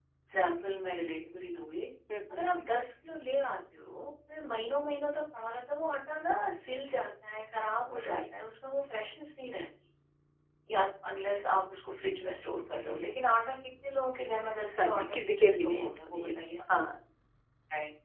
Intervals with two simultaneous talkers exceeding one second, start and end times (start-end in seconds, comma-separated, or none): 14.8-16.3